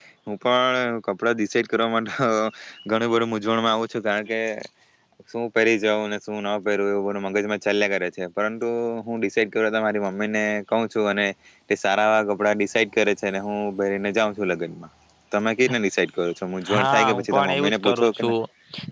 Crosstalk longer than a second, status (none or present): present